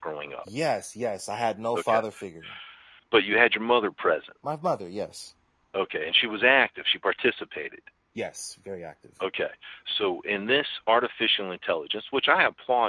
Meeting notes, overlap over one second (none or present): none